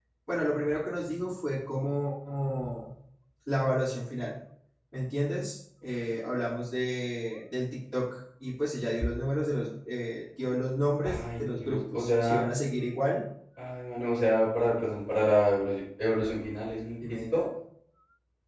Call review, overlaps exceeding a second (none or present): present